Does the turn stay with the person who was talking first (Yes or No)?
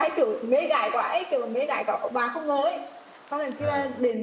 Yes